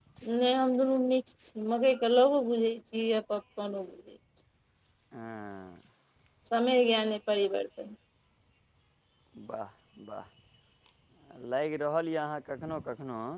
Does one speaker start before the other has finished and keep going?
No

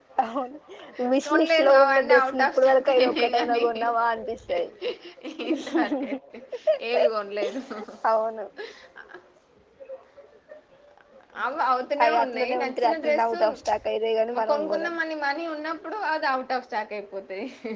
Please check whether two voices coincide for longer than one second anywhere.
Yes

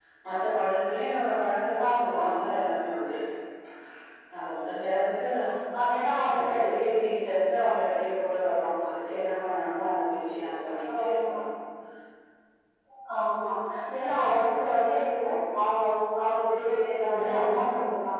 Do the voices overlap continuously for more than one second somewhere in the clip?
No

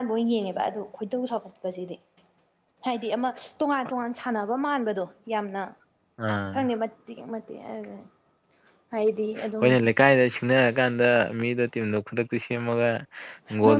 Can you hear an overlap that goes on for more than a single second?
No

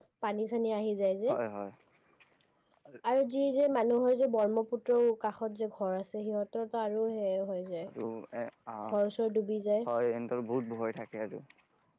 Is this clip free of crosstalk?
Yes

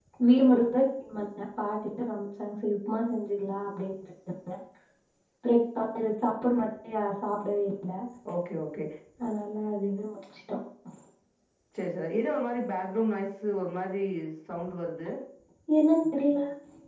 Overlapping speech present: No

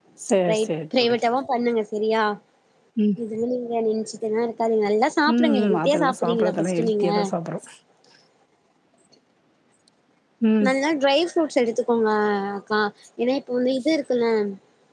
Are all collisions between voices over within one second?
No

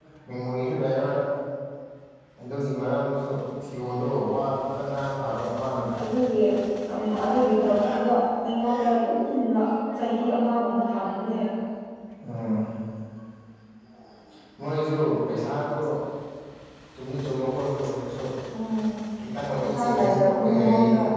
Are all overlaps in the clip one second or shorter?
No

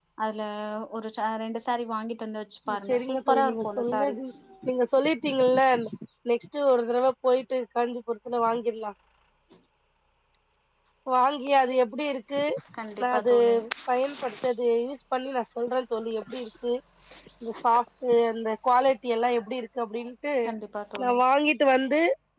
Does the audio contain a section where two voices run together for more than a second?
Yes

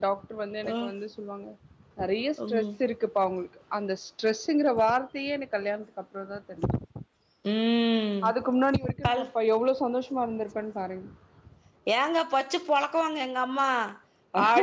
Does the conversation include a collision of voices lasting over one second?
No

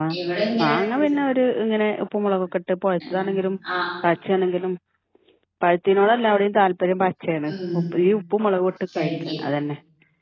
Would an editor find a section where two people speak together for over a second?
No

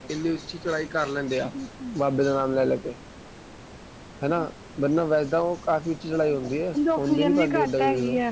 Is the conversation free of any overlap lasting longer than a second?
No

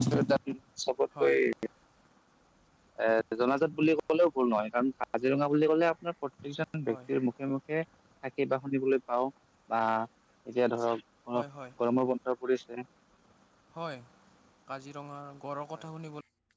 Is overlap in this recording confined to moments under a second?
Yes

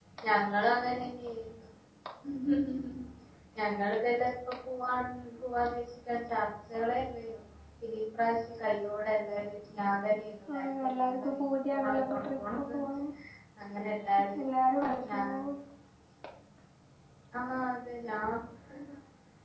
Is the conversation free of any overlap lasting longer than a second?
No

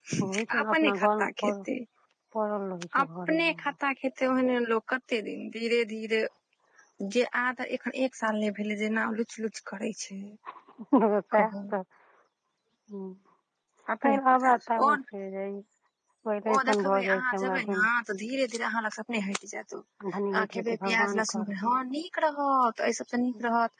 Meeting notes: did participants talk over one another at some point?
Yes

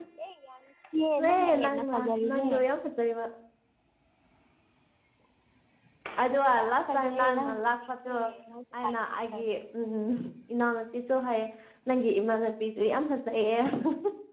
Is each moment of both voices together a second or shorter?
No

